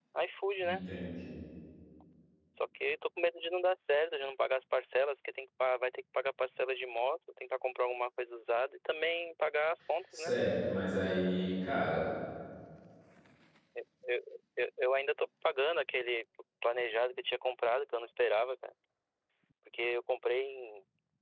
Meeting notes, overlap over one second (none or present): none